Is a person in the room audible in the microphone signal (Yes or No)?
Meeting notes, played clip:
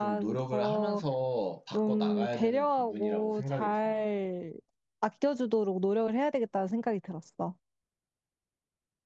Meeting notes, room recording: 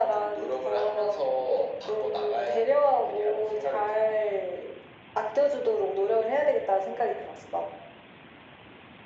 No